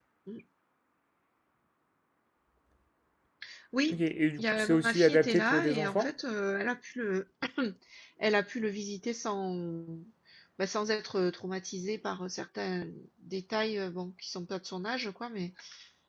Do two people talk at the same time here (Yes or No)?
Yes